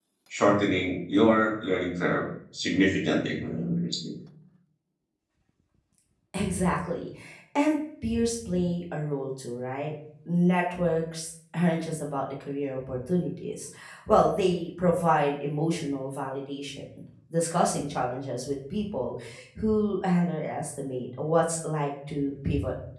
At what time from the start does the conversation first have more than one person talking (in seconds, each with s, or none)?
none